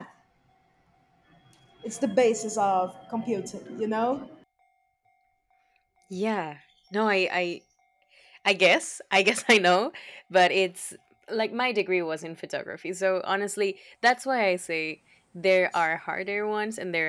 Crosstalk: none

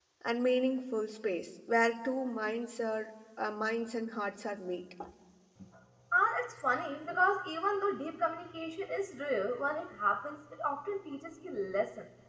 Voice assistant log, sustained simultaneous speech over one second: none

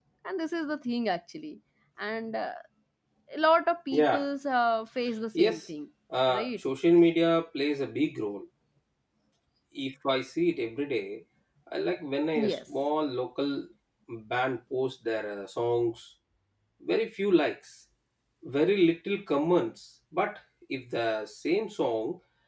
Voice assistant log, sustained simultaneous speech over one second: none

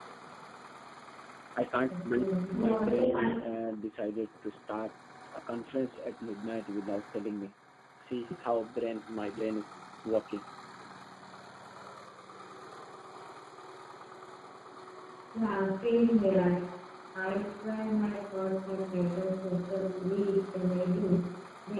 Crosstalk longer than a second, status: present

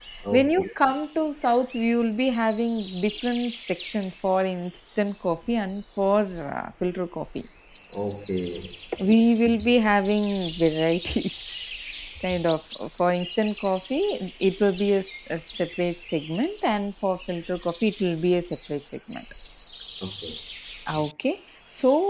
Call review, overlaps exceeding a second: none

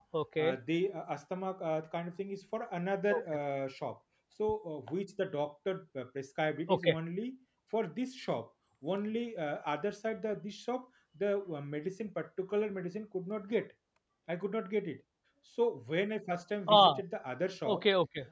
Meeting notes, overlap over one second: none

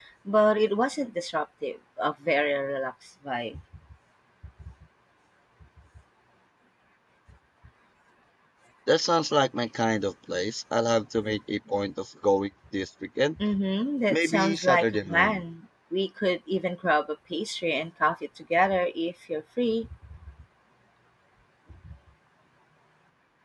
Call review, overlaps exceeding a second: present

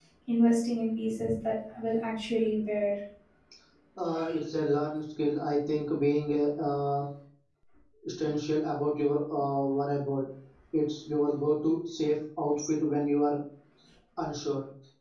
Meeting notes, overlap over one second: none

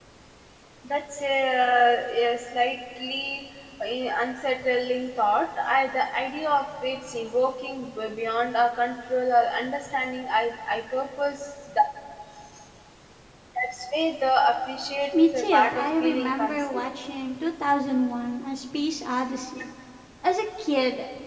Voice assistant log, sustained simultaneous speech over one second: present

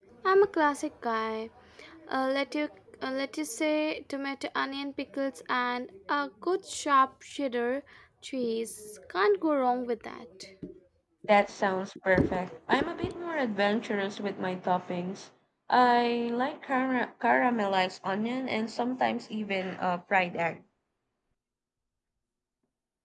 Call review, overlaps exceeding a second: none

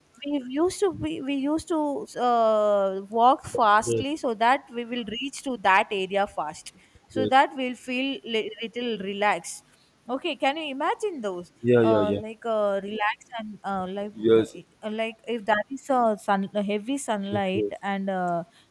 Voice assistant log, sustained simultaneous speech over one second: none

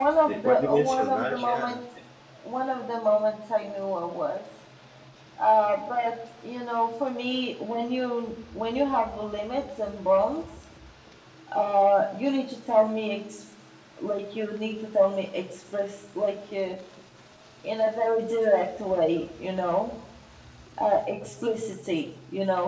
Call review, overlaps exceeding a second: present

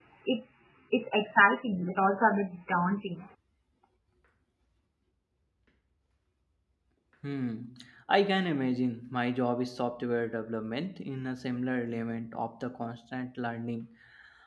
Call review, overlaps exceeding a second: none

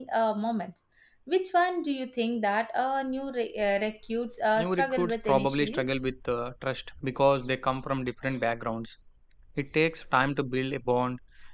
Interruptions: present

